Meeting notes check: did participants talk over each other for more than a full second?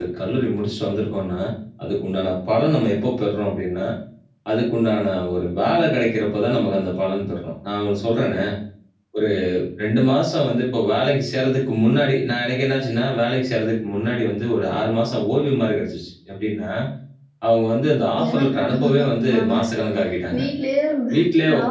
Yes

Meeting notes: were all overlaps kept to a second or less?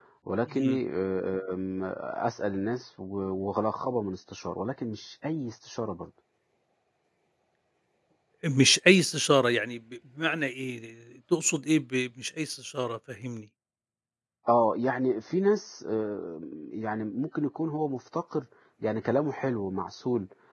Yes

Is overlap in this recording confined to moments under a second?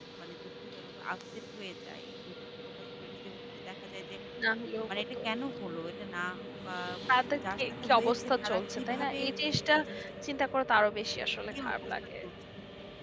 No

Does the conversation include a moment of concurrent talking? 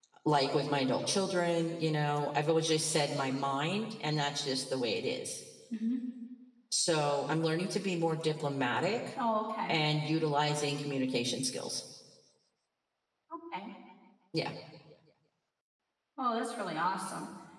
No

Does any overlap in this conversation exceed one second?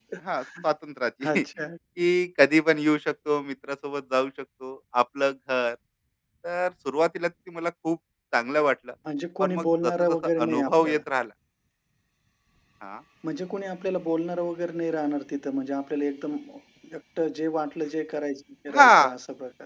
Yes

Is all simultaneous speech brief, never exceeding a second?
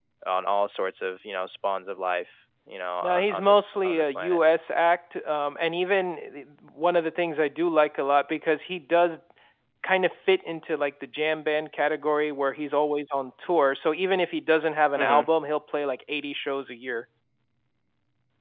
No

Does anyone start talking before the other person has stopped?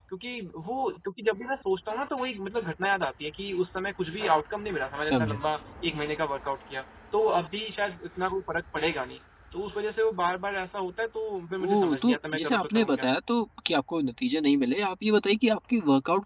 Yes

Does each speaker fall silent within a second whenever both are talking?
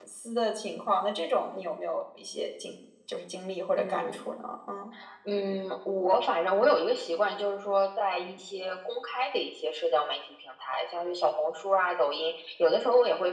Yes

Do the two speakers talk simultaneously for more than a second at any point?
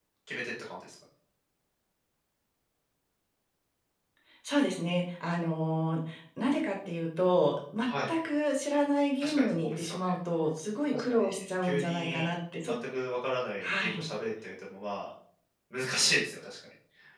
Yes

